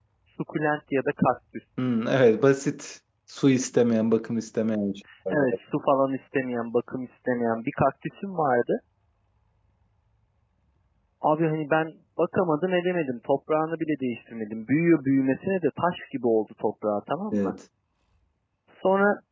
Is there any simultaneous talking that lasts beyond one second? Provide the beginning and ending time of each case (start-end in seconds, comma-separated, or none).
none